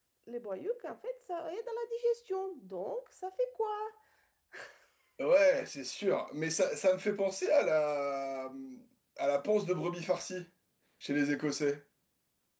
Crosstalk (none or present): none